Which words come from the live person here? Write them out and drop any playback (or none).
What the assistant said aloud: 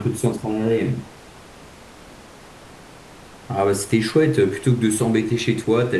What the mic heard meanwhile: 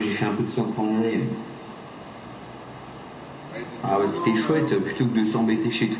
Ouais, il te disait, non, non, on a,